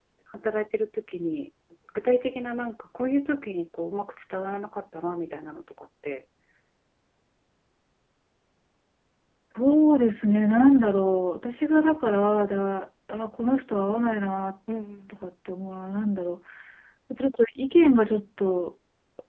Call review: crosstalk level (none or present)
none